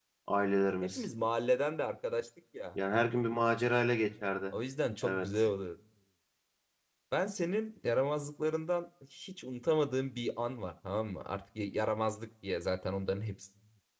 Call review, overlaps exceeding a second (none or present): none